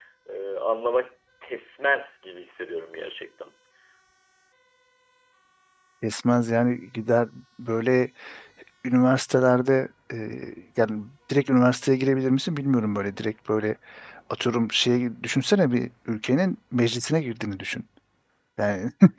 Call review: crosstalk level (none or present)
none